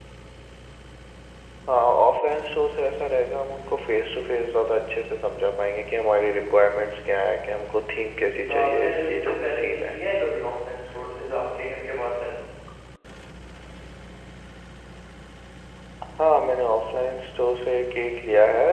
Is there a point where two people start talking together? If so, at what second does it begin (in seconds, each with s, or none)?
8.1 s